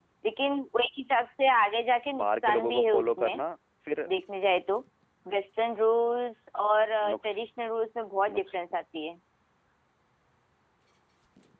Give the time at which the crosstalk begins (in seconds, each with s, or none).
2.2 s